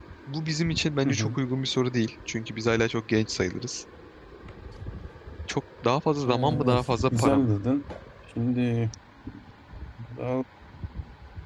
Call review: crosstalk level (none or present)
present